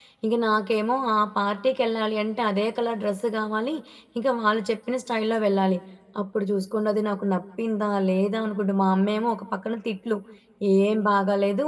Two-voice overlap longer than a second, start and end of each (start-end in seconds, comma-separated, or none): none